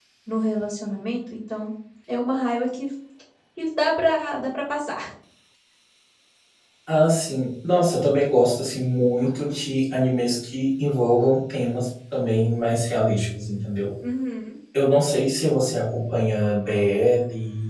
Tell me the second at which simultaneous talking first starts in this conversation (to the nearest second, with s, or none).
none